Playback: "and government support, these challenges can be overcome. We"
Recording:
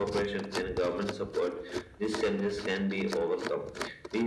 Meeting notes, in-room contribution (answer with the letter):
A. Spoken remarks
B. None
B